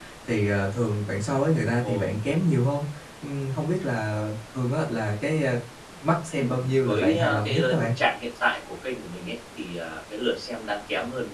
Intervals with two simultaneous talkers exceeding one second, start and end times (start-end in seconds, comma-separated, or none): 6.3-7.9